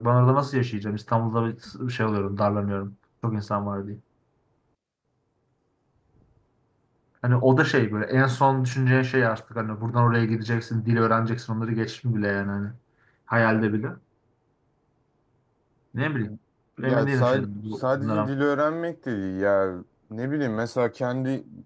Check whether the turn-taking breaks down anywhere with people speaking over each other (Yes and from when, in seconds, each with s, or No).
Yes, from 16.8 s